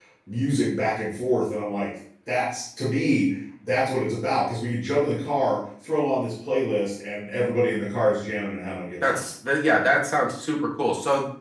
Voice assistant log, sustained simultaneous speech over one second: none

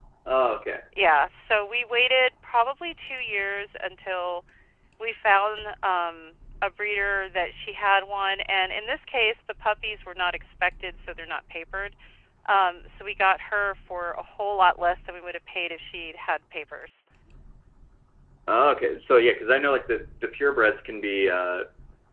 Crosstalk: none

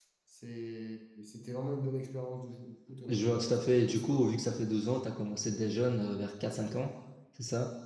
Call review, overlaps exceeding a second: present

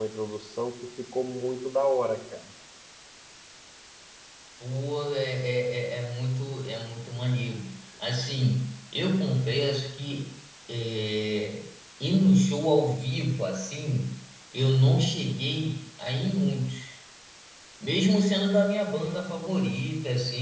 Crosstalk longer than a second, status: none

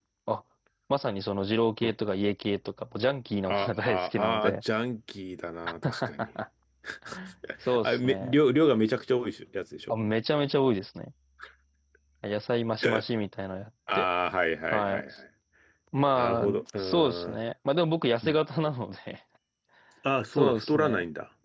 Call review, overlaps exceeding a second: present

